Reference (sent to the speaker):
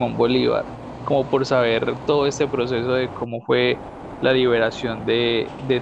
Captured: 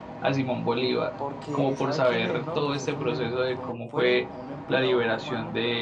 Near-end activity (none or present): present